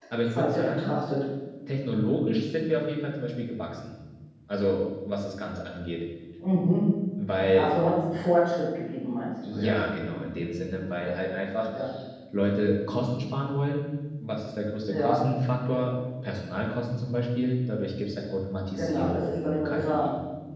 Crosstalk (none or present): present